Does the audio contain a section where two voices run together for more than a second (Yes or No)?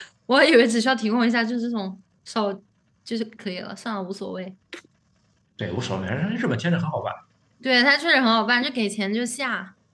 No